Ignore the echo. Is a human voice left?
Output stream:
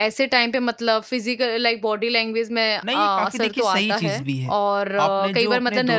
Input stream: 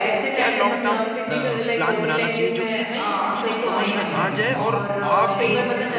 Yes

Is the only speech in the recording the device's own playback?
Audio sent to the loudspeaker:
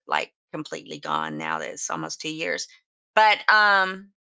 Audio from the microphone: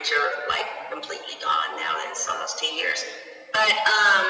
Yes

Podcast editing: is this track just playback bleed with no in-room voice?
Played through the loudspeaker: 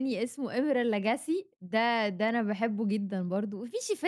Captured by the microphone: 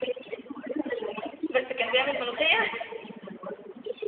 No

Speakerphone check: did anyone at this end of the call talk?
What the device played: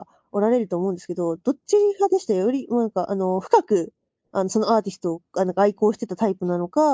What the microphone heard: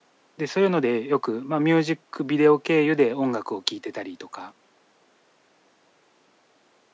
Yes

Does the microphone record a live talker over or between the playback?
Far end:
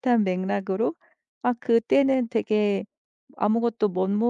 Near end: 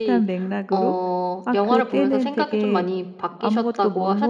Yes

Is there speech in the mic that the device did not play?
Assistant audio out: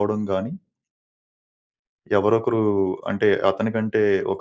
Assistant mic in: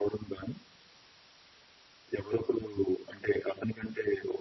No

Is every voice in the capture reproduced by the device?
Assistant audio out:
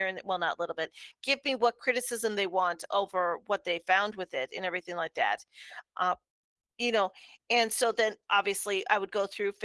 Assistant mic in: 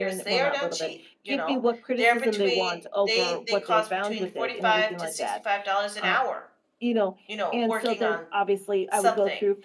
No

